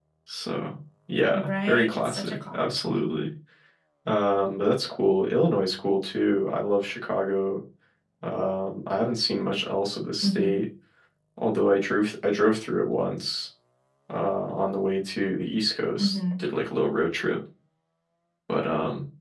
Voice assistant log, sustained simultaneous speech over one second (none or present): present